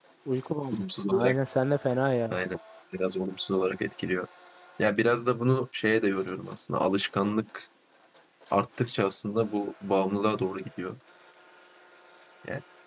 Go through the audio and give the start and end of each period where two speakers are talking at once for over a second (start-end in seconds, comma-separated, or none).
none